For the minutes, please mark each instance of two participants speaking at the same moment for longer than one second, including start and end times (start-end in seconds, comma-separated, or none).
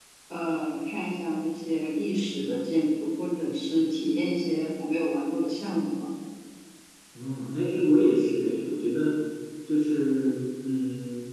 none